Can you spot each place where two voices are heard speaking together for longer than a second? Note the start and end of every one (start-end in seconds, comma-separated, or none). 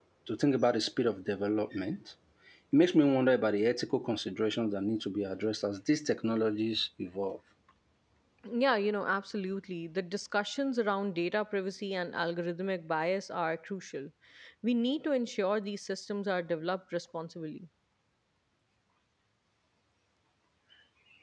none